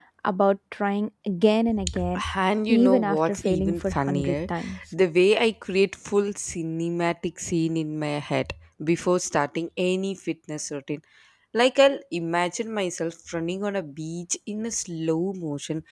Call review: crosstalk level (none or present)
present